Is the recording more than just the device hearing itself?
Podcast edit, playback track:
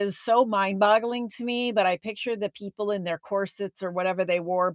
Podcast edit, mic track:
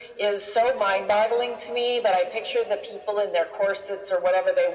No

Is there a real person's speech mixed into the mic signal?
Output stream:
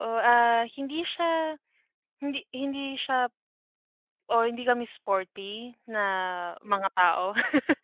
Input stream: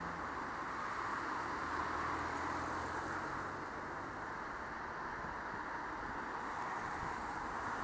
No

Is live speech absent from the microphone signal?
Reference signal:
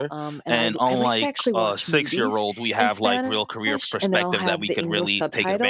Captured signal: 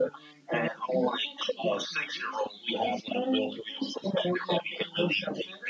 Yes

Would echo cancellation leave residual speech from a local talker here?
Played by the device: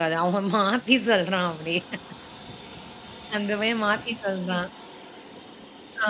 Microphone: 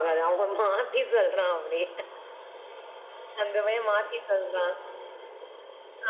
No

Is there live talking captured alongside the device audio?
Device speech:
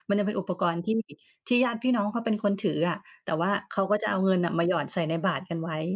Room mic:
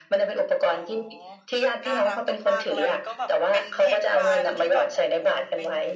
Yes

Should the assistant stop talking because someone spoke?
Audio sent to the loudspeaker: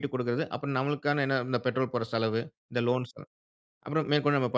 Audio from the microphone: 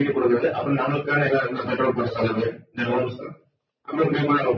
No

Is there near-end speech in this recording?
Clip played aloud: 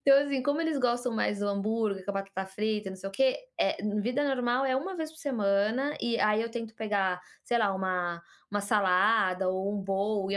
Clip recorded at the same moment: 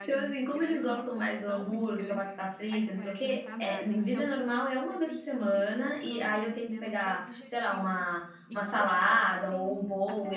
Yes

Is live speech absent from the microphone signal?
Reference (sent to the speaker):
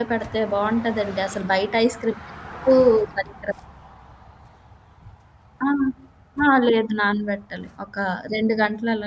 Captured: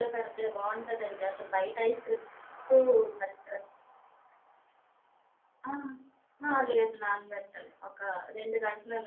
Yes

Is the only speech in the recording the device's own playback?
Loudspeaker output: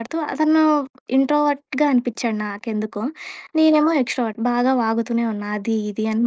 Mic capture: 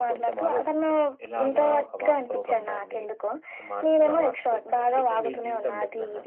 No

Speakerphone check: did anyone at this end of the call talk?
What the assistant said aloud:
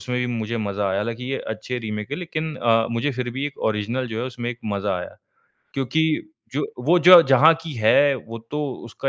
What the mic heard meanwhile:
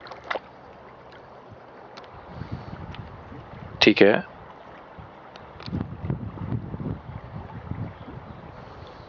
Yes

